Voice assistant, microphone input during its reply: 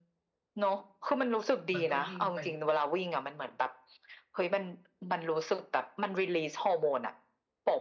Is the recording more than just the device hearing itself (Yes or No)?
Yes